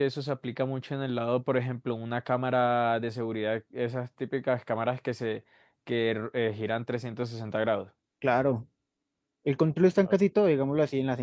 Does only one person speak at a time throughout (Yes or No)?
Yes